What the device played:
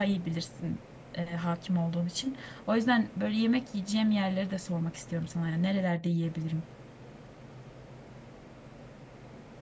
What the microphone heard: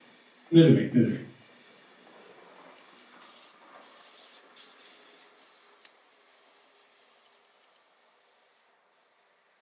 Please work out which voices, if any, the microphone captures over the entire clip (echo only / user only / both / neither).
user only